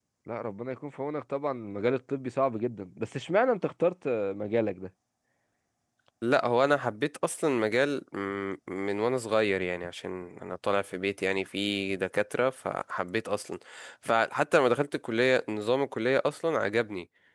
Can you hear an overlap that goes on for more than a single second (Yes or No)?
No